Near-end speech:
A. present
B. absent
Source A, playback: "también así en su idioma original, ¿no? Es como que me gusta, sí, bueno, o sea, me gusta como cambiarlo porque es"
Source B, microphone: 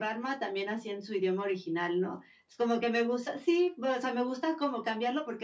B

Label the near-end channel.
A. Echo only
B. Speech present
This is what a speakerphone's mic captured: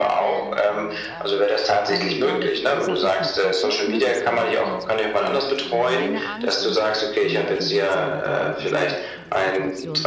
B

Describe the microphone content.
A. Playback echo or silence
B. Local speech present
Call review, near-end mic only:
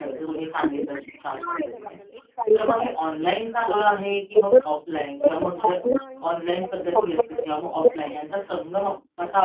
B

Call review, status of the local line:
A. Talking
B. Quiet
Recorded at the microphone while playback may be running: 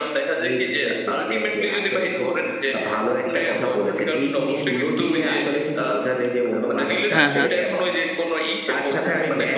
A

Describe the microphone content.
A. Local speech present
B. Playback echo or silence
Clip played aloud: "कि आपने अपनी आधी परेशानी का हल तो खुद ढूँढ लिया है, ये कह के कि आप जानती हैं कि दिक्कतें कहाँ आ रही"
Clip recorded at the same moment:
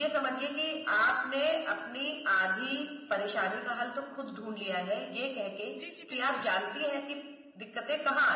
A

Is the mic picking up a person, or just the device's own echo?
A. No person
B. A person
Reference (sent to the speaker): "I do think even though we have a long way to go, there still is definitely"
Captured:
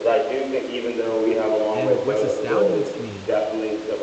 B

